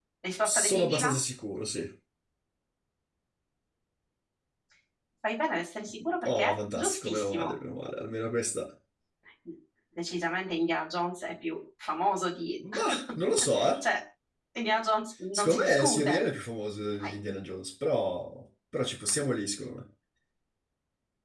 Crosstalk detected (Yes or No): Yes